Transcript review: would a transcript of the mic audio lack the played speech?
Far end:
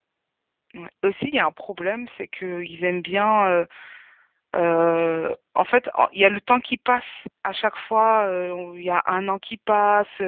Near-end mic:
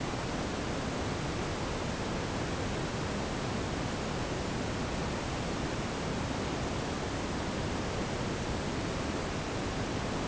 Yes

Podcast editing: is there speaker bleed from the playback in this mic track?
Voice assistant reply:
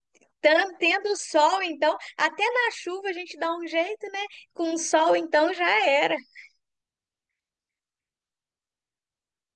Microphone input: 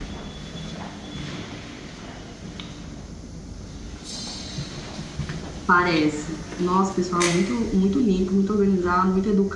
No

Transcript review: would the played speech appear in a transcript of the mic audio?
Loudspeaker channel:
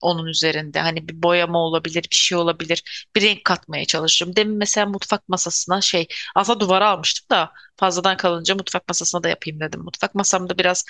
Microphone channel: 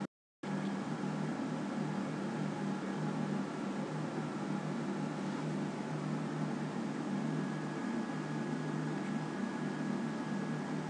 No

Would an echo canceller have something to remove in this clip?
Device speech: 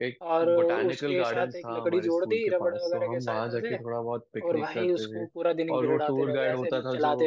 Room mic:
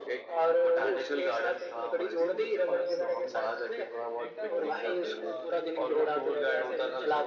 Yes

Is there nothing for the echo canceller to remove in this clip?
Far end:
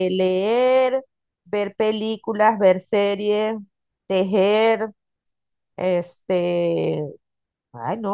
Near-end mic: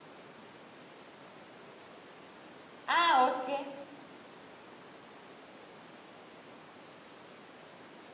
Yes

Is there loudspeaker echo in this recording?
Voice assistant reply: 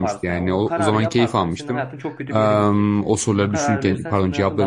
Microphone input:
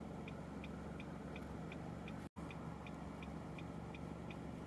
No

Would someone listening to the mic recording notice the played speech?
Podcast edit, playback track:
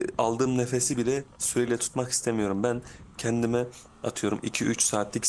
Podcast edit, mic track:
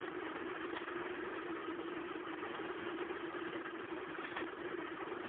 No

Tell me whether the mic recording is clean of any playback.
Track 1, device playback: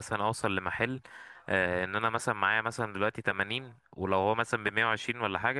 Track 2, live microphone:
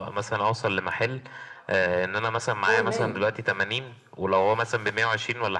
No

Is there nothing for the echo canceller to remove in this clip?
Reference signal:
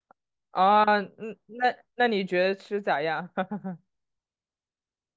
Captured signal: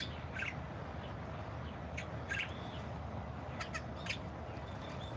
Yes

